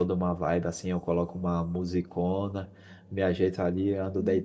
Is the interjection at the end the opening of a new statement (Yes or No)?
No